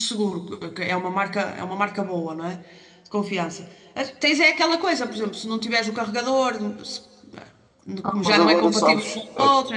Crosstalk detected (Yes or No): Yes